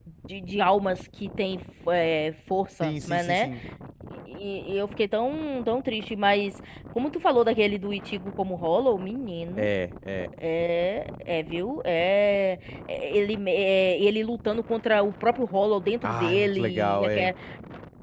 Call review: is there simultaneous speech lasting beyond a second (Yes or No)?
Yes